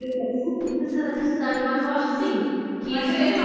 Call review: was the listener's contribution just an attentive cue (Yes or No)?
No